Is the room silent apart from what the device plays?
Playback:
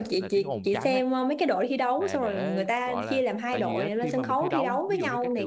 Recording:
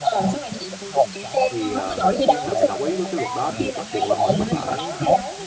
No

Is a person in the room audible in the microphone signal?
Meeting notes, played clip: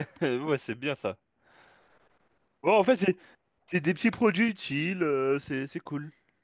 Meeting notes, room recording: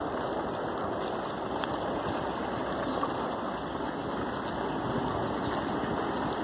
No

